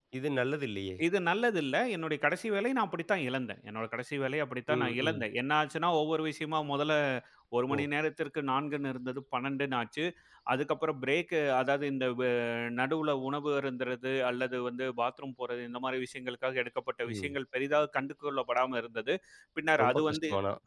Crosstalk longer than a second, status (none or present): none